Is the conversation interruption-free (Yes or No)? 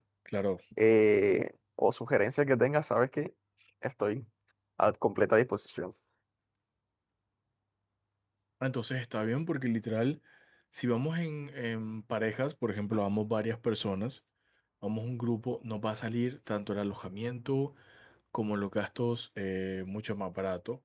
Yes